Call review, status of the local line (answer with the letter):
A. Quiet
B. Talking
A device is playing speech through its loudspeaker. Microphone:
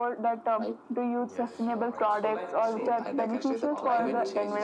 B